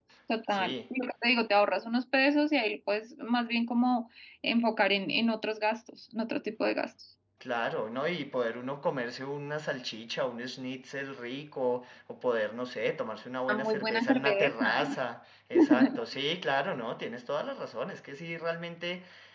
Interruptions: present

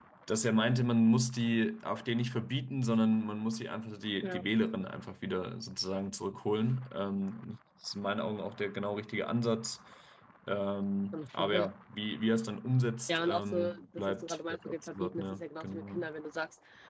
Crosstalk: present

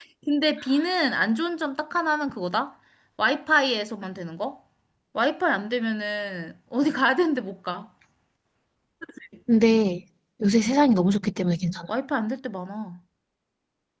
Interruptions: none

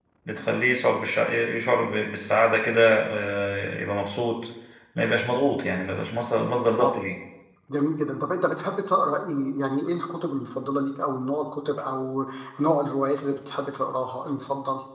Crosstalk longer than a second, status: none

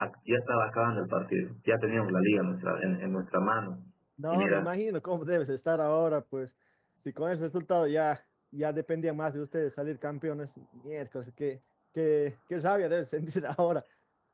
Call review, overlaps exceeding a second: none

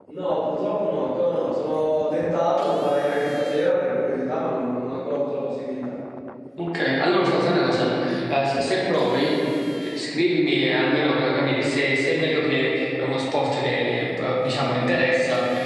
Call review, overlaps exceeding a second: none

